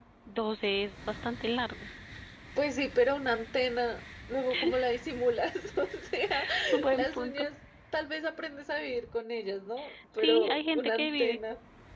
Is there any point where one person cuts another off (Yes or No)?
Yes